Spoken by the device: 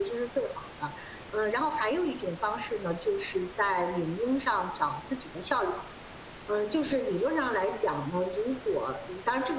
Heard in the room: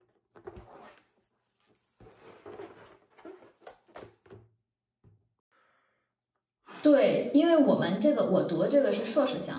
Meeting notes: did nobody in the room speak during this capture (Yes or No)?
No